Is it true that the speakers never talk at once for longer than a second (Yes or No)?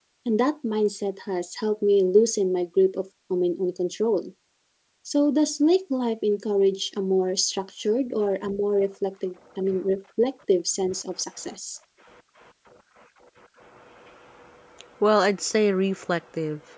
Yes